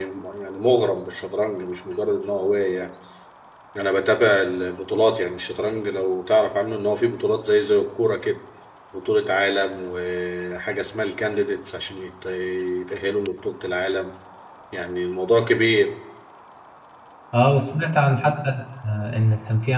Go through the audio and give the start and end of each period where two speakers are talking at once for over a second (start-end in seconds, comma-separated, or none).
none